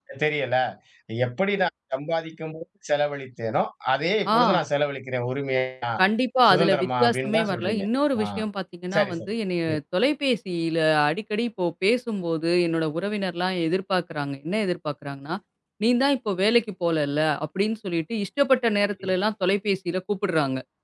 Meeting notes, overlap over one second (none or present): present